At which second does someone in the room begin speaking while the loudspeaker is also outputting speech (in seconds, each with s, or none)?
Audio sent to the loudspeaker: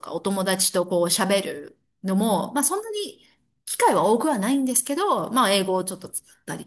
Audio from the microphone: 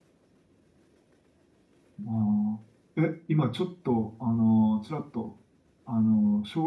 2.0 s